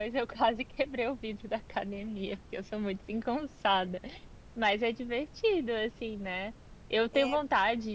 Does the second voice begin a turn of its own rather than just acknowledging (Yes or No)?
No